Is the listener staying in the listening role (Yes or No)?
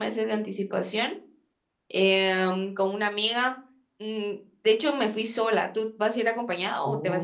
No